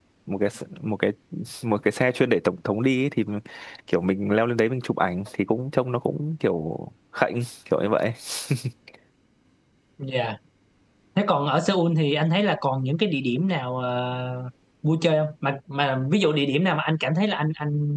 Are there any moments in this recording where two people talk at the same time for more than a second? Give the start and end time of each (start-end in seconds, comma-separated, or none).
none